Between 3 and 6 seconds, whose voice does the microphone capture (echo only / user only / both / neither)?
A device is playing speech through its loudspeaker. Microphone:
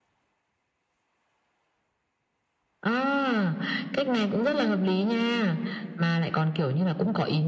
echo only